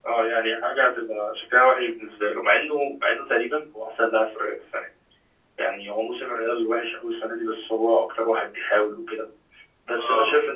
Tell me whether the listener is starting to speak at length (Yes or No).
No